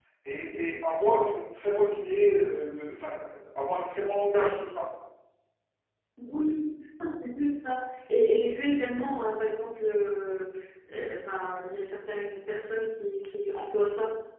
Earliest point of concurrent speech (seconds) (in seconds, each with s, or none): none